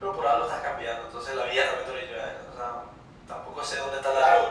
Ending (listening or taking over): taking over